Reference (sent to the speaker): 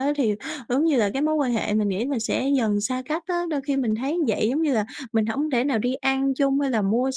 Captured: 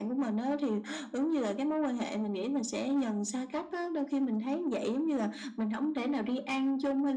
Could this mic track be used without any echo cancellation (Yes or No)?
No